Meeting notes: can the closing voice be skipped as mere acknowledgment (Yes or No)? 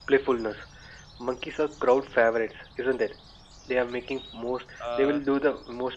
Yes